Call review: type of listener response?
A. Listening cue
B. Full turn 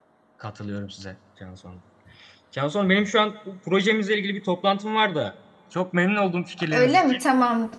B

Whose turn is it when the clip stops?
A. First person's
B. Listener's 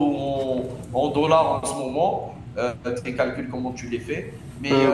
A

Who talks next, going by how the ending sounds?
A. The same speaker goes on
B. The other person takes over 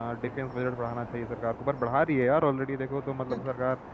A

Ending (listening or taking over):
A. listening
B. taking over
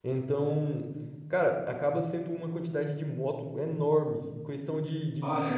A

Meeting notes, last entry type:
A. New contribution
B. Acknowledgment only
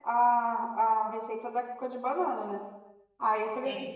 B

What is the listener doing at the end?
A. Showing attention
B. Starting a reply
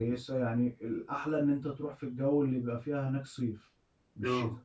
A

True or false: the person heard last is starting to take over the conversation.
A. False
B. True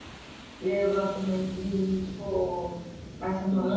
A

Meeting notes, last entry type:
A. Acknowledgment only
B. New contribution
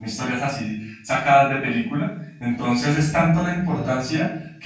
A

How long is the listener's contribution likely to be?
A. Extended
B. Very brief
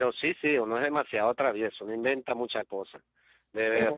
A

